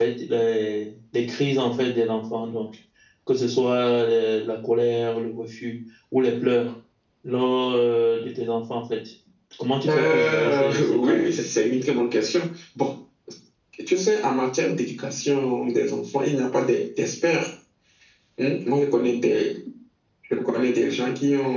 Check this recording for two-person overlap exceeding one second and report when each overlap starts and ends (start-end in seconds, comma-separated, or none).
9.9-11.3